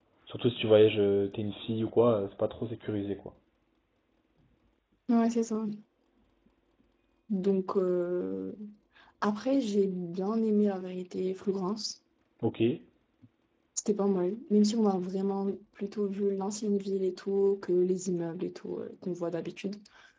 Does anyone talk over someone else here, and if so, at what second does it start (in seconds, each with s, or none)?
none